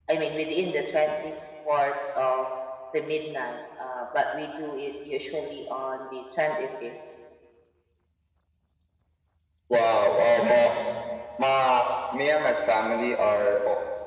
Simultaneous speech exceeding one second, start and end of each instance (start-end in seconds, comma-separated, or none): none